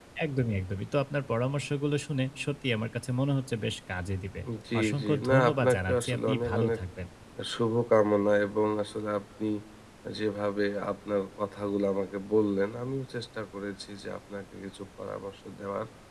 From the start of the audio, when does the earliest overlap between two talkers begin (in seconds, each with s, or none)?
4.8 s